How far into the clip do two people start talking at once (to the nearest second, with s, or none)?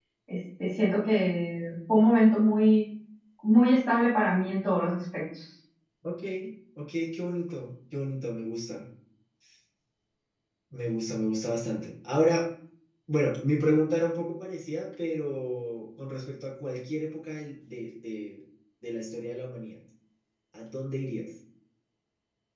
none